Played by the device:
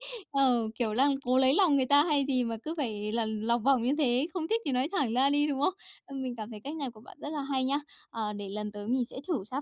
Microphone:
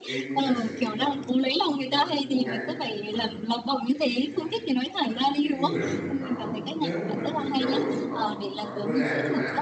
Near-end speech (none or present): present